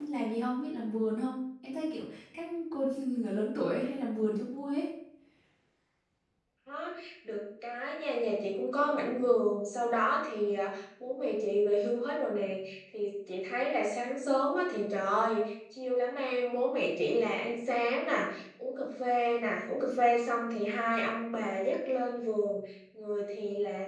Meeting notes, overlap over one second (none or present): none